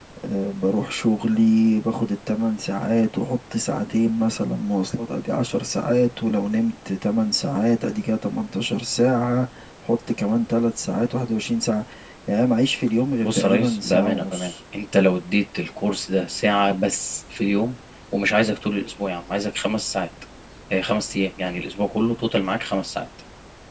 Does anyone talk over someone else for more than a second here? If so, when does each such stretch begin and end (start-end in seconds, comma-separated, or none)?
13.2-14.5